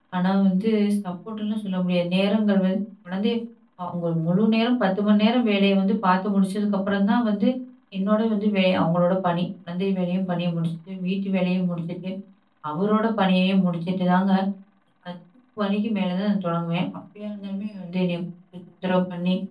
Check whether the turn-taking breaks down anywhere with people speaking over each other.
No

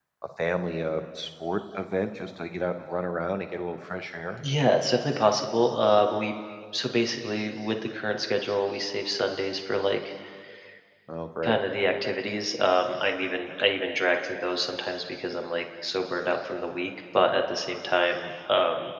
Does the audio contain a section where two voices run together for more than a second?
No

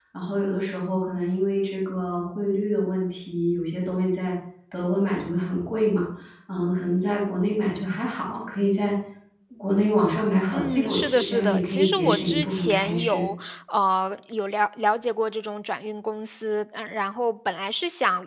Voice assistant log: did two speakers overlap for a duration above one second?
Yes, from 10.5 s

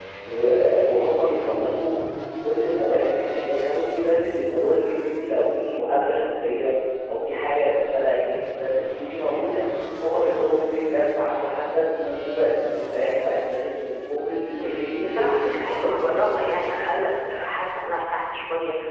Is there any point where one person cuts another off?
Yes, from 14.6 s

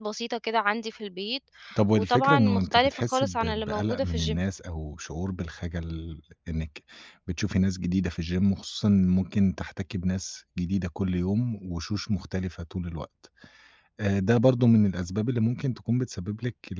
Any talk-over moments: Yes, from 2.0 s

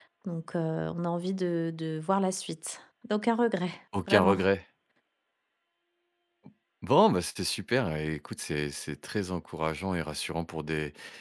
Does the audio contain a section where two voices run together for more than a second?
No

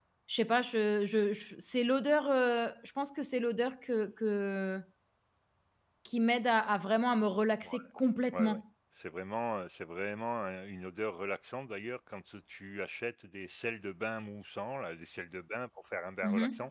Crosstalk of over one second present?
No

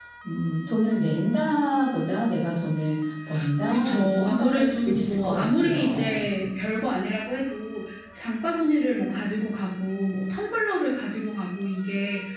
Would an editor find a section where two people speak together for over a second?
Yes, from 3.7 s

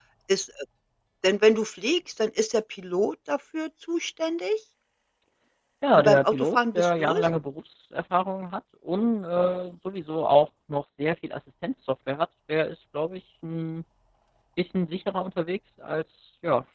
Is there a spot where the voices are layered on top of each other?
Yes, from 5.9 s

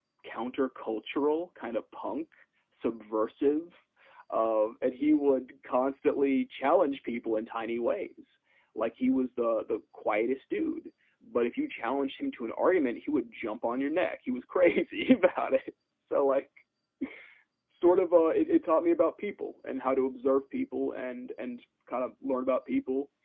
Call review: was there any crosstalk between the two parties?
No

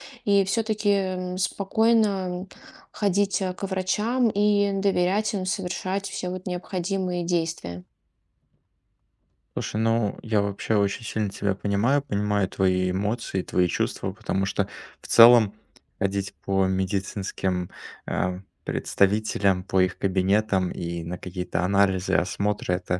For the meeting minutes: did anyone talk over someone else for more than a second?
No

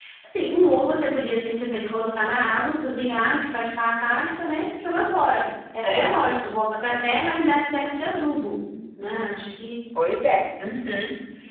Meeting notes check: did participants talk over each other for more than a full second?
No

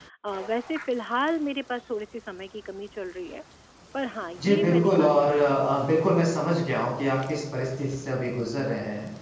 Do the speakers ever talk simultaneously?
Yes, from 4.4 s

